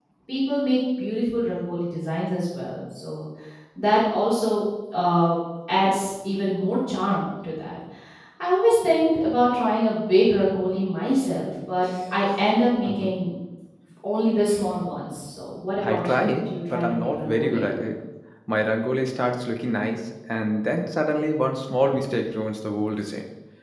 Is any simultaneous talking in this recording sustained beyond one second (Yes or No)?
Yes